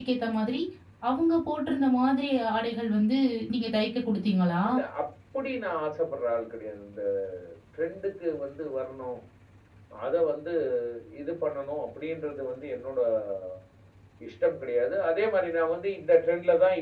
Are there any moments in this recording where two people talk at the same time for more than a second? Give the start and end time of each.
none

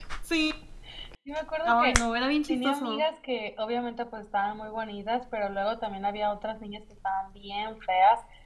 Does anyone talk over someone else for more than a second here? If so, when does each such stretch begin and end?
none

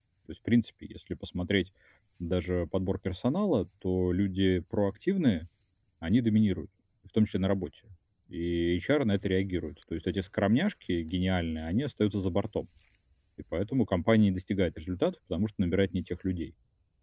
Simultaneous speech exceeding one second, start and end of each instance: none

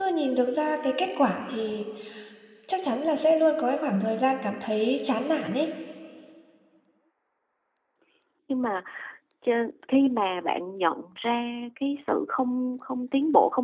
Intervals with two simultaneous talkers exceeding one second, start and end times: none

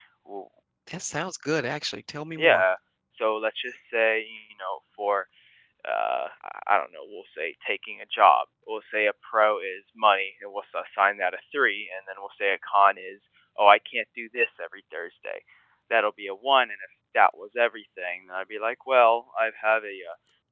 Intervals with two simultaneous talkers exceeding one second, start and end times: none

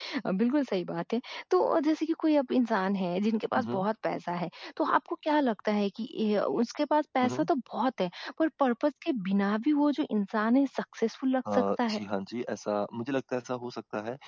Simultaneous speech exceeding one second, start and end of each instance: none

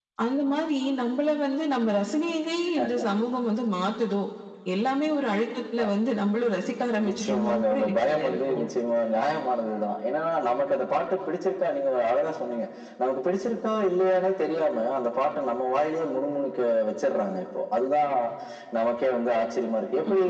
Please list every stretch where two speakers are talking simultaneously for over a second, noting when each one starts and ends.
7.1-8.7

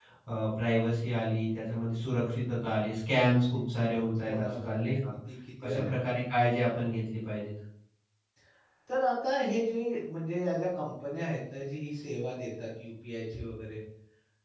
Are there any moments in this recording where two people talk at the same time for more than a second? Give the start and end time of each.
none

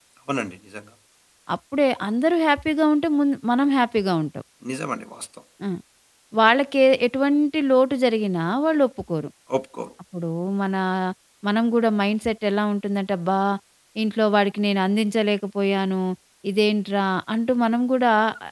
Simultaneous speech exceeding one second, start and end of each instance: none

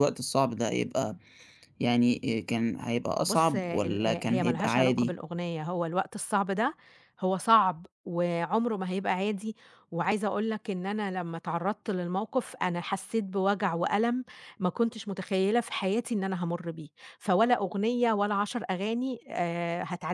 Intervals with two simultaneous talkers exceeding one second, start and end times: 3.3-5.1

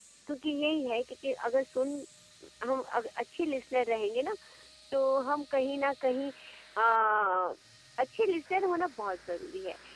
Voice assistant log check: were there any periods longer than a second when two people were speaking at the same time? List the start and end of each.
none

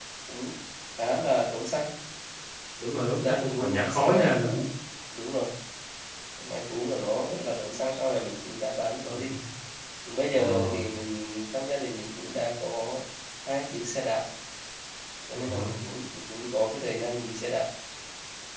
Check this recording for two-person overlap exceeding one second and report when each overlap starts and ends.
2.9-4.5

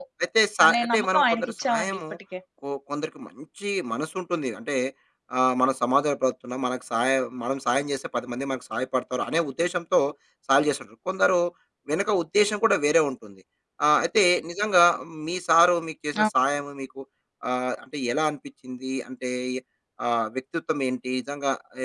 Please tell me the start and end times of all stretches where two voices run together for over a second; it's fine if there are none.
0.7-2.0

